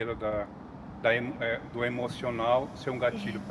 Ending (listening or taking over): listening